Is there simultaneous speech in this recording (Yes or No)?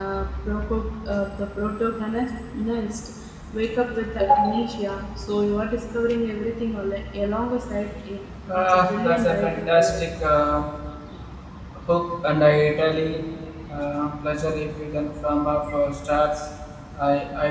Yes